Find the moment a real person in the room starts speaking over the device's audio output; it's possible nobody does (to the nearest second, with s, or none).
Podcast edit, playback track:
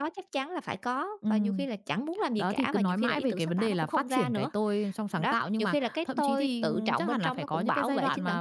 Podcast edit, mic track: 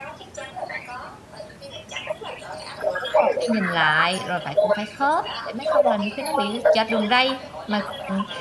3 s